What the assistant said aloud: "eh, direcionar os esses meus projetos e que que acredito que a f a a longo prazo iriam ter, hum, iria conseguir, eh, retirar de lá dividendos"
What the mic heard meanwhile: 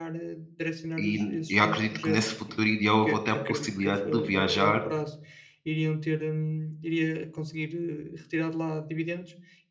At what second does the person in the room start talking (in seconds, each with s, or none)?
1.0 s